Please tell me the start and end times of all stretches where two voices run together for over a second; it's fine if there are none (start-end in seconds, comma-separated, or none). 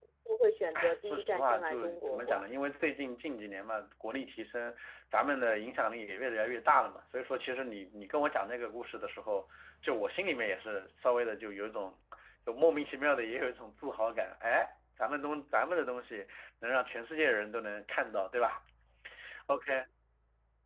0.7-2.5